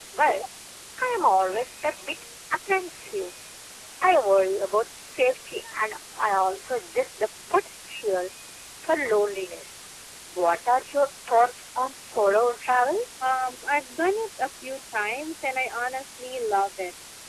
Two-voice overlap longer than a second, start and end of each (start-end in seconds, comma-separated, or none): none